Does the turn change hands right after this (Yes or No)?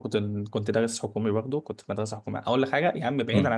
No